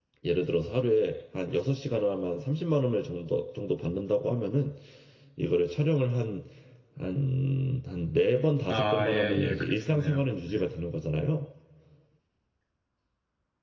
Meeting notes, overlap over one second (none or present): present